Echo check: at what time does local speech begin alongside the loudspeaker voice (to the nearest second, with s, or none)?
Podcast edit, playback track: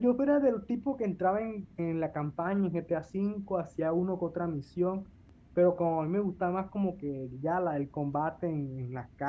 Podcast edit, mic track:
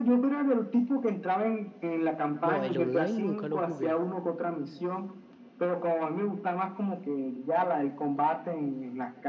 2 s